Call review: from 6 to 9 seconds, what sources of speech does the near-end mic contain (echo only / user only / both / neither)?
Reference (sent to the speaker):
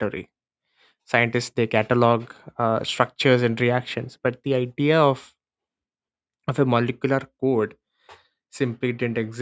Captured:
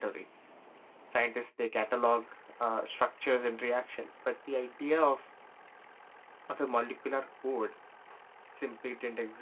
echo only